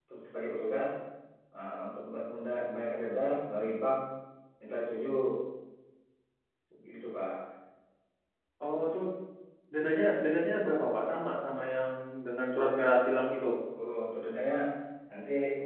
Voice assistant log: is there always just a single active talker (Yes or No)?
Yes